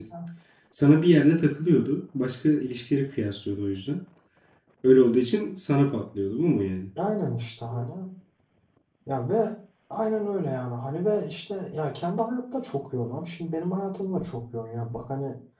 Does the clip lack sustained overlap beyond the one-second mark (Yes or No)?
Yes